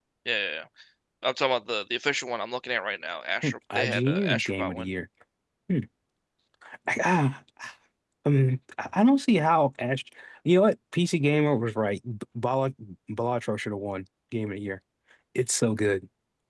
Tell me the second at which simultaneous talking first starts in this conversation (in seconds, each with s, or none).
3.4 s